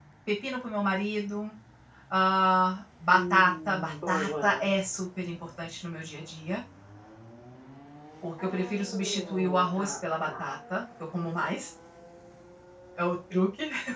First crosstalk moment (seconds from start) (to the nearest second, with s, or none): 3 s